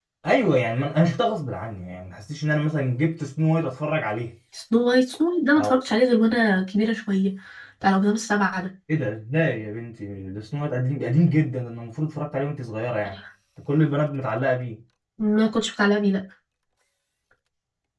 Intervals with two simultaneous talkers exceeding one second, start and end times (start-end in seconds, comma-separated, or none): none